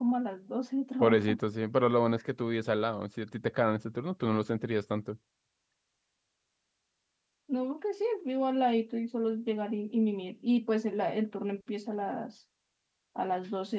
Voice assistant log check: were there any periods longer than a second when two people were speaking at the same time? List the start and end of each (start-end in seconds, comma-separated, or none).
none